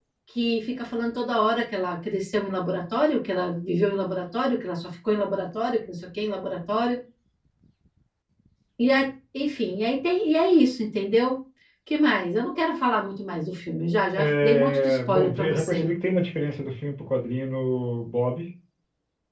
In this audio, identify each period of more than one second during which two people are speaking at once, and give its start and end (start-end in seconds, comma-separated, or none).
14.2-15.9